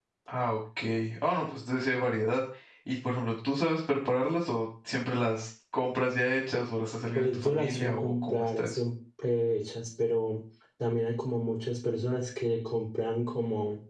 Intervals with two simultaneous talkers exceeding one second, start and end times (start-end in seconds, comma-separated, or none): 7.1-8.8